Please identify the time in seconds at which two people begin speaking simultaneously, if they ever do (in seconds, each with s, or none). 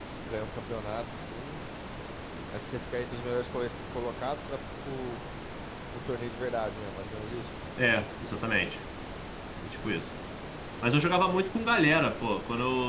none